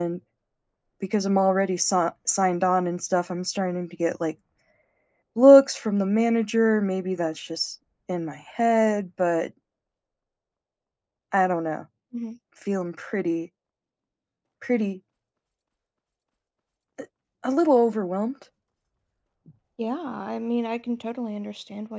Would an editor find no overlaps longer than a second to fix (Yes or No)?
Yes